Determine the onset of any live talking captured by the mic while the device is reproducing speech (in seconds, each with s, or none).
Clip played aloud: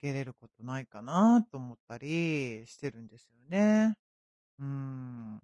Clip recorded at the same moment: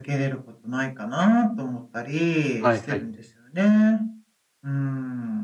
2.6 s